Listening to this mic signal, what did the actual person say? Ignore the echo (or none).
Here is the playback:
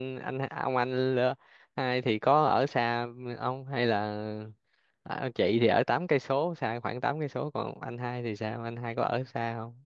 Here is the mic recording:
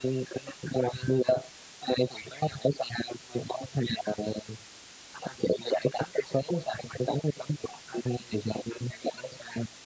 none